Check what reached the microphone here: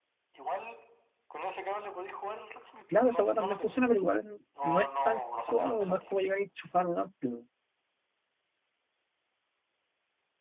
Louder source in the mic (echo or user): user